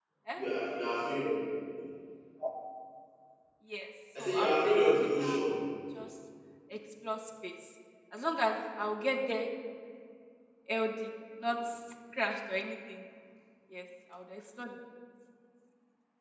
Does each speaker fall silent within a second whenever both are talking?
No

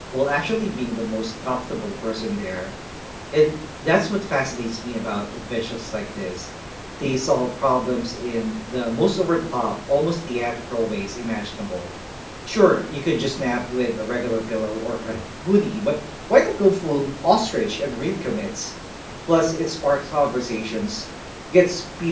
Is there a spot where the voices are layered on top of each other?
No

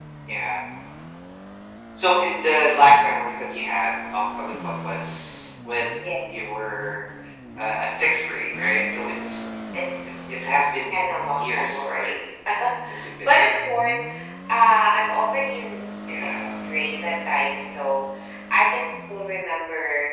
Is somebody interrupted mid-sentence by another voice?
Yes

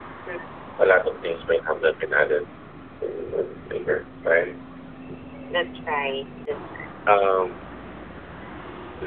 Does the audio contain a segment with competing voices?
No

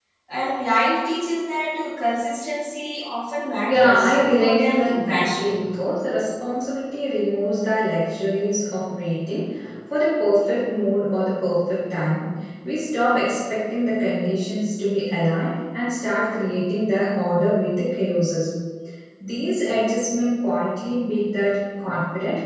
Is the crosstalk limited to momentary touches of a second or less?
No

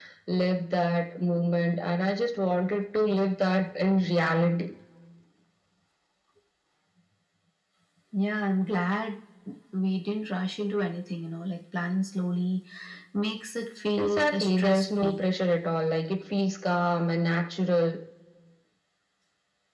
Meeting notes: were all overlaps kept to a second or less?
No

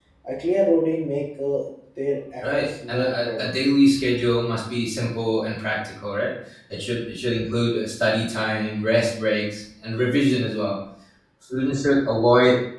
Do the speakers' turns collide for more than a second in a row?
Yes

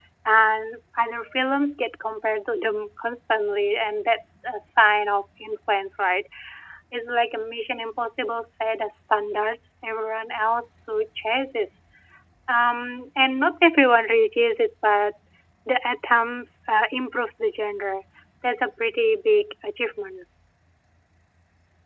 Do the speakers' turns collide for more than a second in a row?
No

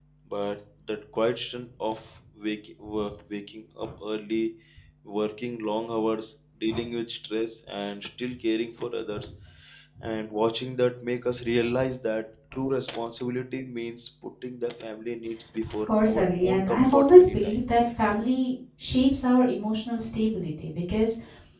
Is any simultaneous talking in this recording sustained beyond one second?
Yes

